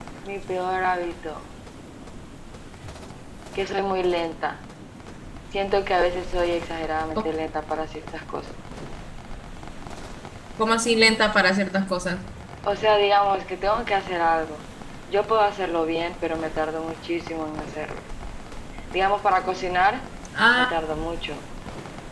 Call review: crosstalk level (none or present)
none